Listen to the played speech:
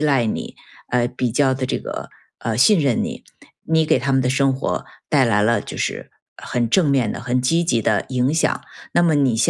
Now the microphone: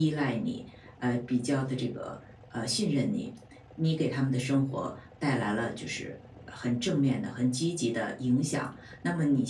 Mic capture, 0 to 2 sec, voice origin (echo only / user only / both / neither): echo only